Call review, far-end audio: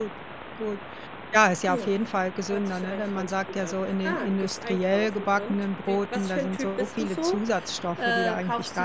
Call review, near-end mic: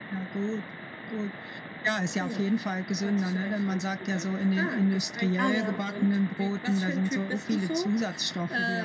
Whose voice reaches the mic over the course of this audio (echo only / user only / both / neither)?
both